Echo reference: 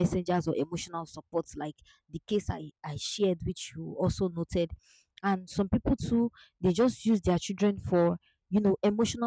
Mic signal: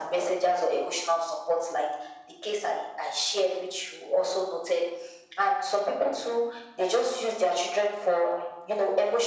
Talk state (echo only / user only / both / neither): echo only